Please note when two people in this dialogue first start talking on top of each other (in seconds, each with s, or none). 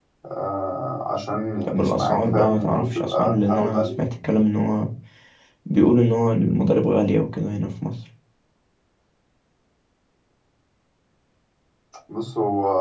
1.7 s